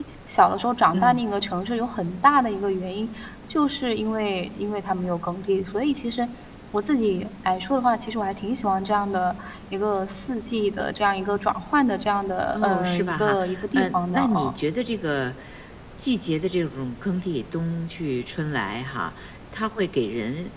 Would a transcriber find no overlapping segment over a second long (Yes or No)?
No